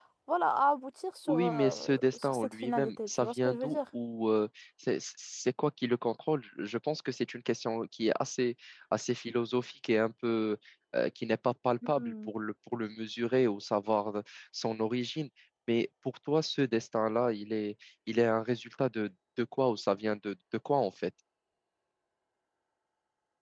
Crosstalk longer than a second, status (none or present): present